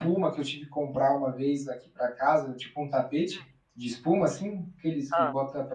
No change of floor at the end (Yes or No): Yes